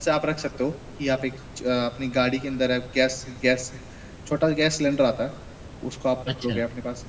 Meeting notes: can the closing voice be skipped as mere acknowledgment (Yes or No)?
Yes